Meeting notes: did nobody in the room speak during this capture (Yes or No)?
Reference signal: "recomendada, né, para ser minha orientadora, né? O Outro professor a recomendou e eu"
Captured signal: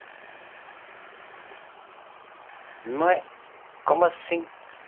No